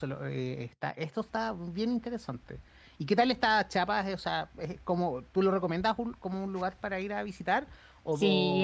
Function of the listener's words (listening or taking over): taking over